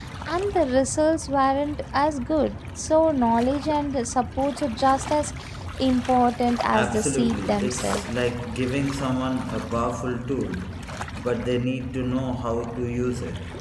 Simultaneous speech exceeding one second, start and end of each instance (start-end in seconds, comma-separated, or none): 6.7-8.0